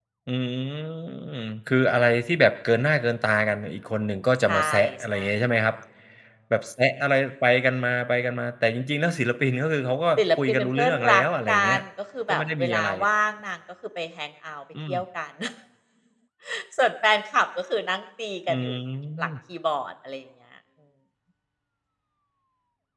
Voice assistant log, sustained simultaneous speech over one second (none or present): present